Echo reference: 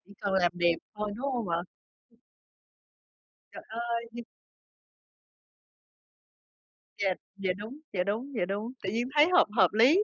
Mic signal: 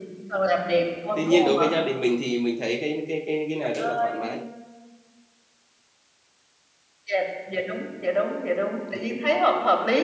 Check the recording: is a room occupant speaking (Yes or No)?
Yes